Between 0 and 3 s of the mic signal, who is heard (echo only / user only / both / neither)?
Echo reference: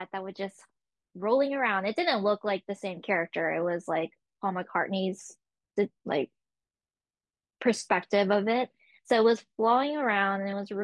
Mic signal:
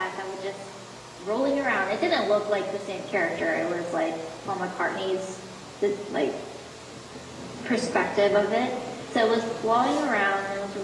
echo only